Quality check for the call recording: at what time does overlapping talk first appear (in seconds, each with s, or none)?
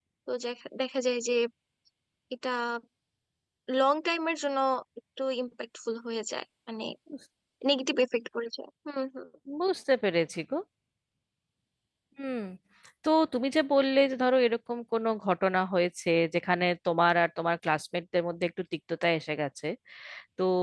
none